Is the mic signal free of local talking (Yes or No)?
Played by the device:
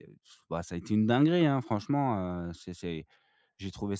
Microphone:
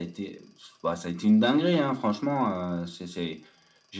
Yes